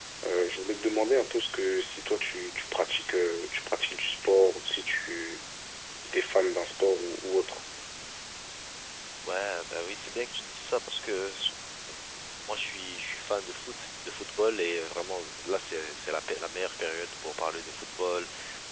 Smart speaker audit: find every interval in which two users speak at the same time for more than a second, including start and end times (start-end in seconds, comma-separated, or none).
none